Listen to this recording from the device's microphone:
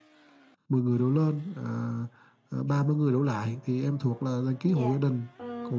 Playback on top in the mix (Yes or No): Yes